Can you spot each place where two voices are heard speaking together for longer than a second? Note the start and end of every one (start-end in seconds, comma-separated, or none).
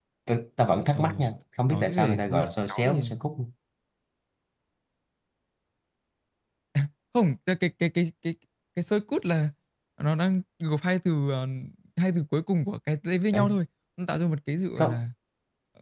1.7-3.0